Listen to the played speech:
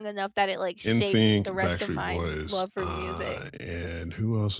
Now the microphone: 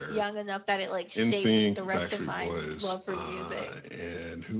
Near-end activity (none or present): none